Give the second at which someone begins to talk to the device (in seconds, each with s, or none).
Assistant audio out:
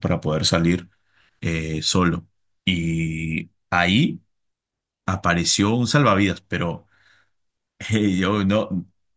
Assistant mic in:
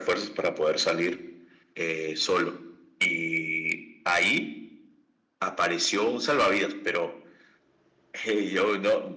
none